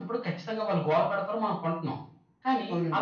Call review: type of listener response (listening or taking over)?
listening